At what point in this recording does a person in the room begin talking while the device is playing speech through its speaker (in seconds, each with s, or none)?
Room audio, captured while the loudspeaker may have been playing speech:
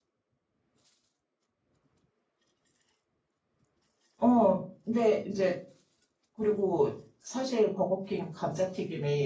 4.2 s